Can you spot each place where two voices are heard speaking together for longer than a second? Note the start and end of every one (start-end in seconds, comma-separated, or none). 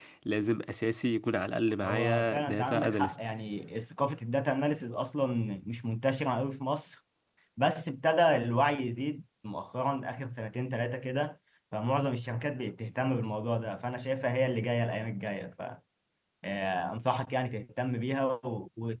1.8-3.1